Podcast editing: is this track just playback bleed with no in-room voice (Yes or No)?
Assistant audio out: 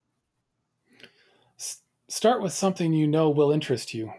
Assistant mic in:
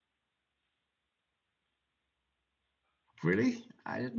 No